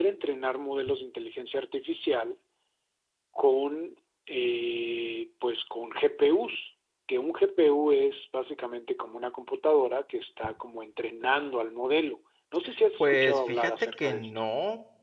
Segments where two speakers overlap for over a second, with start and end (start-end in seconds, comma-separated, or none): 13.0-14.3